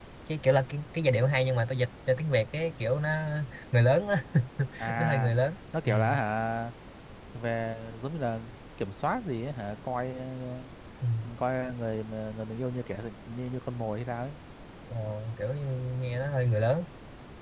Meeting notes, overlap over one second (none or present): none